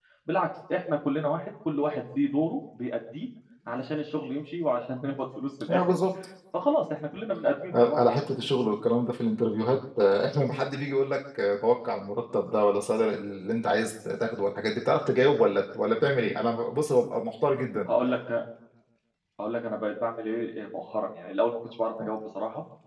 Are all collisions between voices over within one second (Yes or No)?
Yes